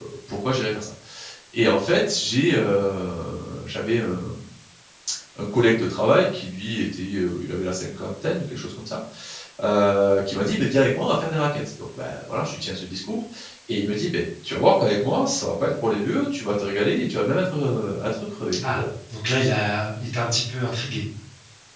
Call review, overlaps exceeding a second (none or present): none